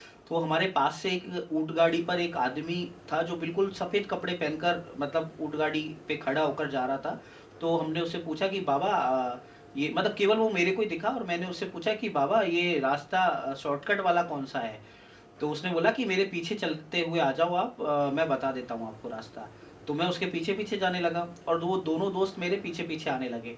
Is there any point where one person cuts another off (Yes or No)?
No